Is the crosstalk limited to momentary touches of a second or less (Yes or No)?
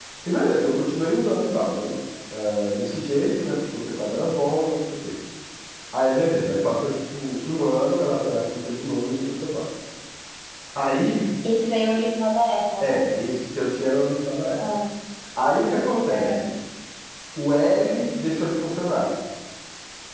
Yes